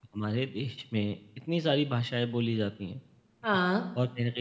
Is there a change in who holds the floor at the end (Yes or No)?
No